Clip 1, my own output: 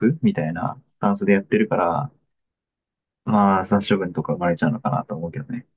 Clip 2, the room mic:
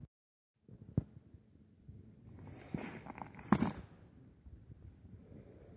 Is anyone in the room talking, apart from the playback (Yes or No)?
No